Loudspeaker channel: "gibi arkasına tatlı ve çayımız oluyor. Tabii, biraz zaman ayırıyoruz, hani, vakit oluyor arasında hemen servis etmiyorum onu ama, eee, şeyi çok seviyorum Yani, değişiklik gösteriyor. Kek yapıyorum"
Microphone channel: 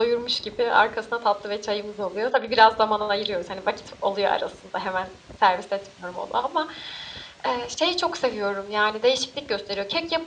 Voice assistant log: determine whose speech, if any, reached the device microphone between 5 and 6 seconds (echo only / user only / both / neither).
echo only